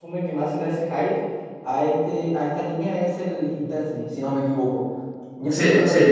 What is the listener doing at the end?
taking over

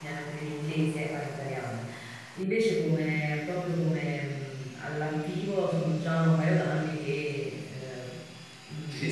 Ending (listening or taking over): taking over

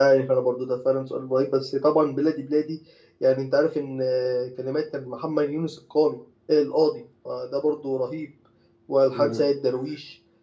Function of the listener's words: listening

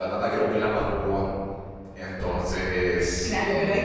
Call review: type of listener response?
taking over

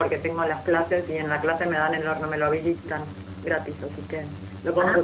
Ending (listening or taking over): taking over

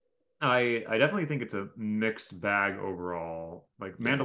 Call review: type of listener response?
listening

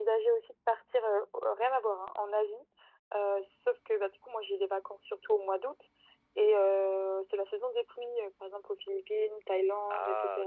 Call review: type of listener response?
listening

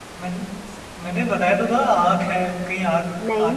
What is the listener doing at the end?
taking over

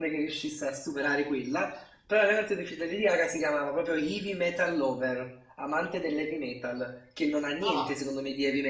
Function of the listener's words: listening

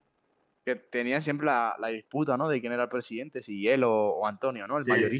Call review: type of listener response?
taking over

